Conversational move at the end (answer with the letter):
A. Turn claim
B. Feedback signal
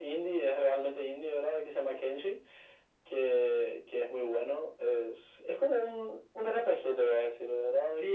A